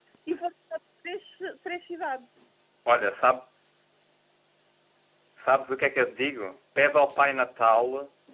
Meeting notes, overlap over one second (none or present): none